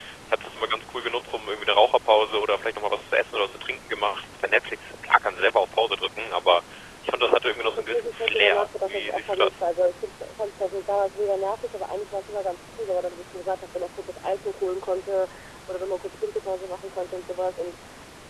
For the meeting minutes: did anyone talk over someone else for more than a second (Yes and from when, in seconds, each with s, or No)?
Yes, from 7.6 s